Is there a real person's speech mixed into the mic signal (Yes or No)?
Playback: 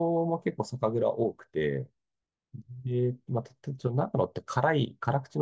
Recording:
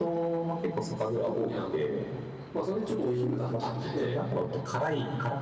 Yes